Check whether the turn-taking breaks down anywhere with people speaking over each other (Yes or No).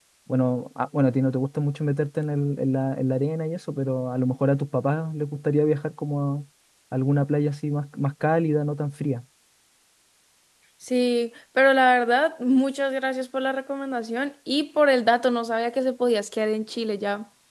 No